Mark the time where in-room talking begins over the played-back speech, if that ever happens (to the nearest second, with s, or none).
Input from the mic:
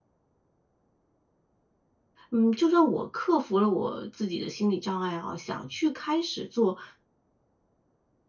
2 s